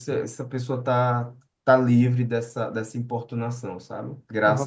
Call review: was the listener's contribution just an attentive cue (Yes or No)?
No